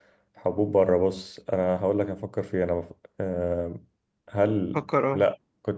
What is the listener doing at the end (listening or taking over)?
listening